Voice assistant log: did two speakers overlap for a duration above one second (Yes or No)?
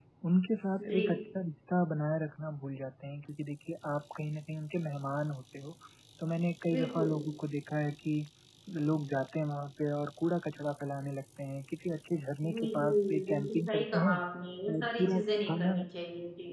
Yes